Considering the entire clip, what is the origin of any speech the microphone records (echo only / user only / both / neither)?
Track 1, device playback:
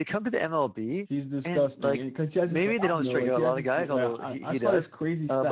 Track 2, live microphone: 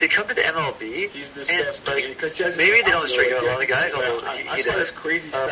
echo only